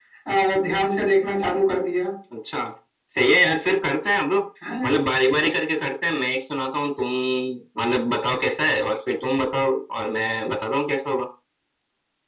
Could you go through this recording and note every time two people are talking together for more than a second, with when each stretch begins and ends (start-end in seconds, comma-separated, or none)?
none